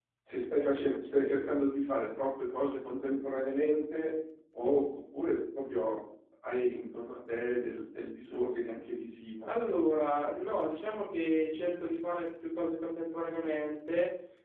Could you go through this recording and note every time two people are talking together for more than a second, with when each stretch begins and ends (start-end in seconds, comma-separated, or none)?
none